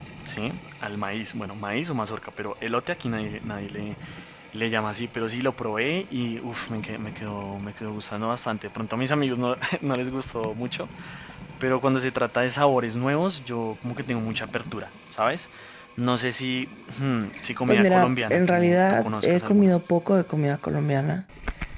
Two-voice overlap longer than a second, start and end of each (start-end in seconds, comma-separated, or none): 17.7-19.7